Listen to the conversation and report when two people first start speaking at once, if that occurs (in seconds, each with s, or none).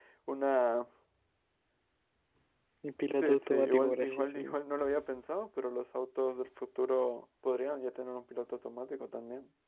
3.2 s